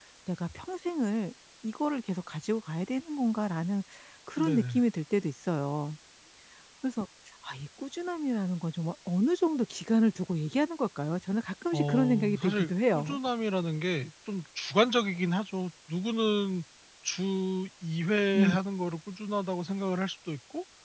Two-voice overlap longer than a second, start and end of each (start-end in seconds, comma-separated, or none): 11.7-13.2